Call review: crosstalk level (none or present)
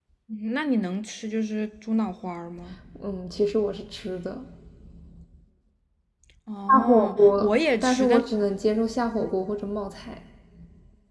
present